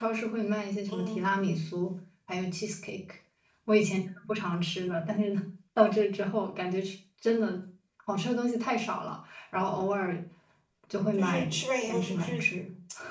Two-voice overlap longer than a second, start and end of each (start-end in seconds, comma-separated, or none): 11.2-12.4